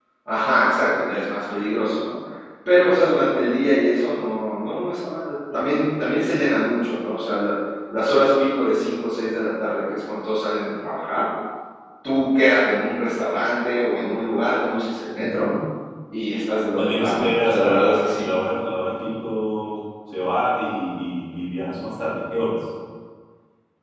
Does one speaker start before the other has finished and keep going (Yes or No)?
Yes